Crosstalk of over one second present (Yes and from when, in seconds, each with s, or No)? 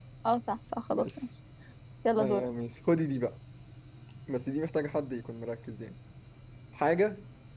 No